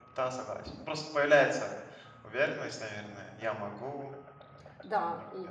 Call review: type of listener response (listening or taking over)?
taking over